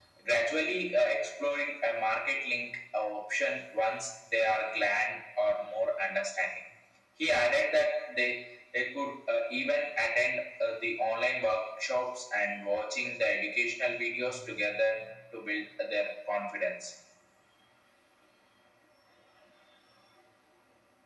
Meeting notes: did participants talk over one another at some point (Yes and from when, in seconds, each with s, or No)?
No